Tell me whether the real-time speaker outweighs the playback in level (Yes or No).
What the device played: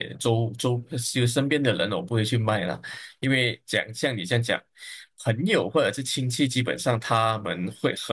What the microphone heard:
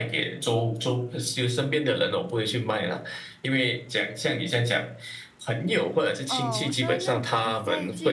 No